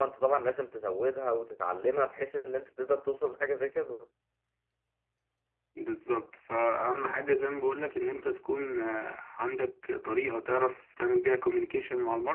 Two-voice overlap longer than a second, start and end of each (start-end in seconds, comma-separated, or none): none